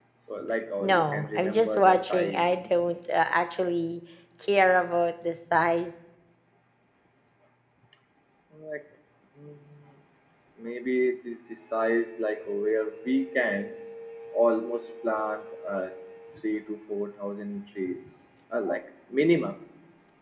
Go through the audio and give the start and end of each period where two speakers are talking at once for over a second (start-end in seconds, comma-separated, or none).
0.8-2.5